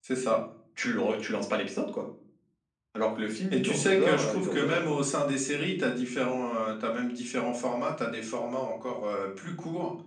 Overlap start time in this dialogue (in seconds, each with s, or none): 3.5 s